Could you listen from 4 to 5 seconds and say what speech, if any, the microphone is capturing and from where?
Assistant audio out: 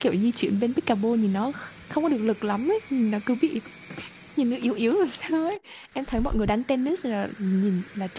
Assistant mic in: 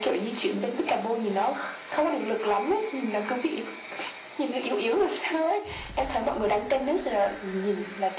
echo only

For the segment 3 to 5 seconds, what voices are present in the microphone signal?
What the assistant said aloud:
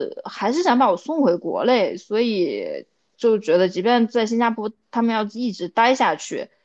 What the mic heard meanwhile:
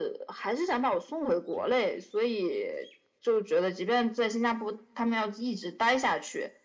echo only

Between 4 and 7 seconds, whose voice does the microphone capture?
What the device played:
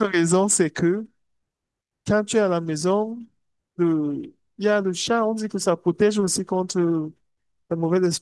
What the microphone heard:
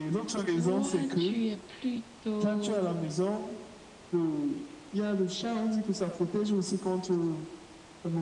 echo only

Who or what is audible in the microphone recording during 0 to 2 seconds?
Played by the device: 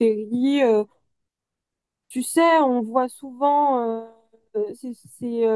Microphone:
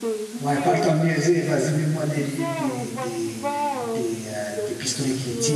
both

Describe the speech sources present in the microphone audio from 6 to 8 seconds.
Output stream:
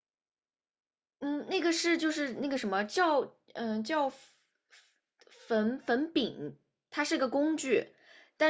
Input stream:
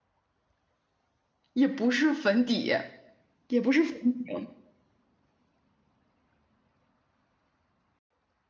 neither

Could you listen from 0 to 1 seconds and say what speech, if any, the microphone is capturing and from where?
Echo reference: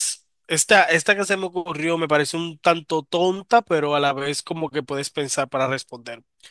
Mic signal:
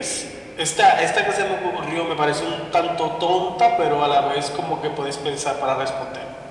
echo only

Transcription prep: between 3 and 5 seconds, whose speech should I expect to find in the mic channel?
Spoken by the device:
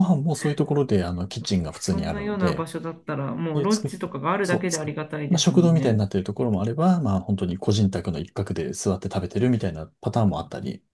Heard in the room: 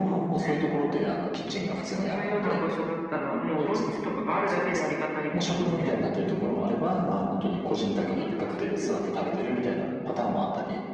echo only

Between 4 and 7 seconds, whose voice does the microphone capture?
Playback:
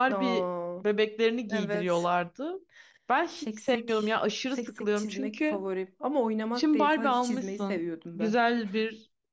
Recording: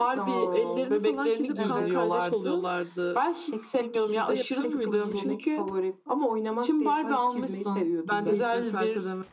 both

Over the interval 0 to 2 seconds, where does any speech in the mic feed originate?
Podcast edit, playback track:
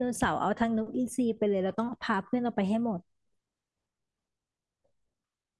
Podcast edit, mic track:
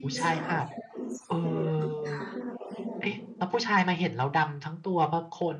both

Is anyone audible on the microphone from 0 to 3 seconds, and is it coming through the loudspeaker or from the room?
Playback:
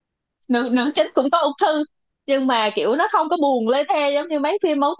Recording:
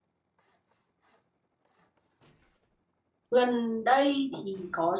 neither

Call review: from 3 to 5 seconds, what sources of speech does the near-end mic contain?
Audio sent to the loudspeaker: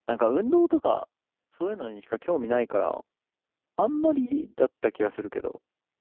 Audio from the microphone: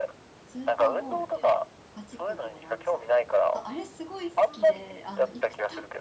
both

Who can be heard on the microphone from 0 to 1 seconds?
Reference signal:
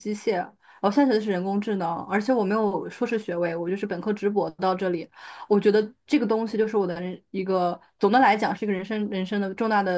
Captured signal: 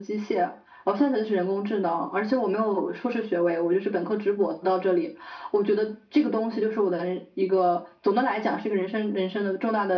echo only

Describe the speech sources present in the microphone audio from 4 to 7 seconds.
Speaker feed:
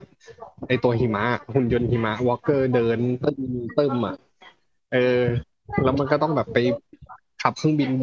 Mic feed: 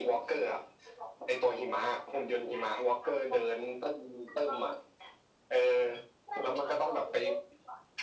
echo only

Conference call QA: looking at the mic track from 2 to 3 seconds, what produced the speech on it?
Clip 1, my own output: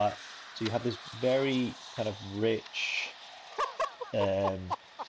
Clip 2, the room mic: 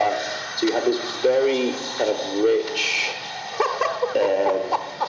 echo only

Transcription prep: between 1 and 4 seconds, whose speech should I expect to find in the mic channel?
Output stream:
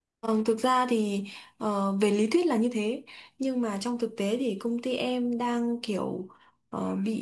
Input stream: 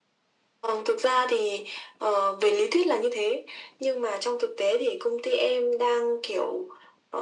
echo only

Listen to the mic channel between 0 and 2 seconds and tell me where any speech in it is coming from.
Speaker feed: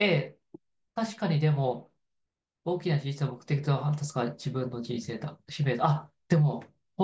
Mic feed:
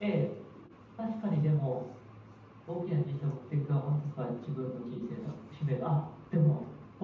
echo only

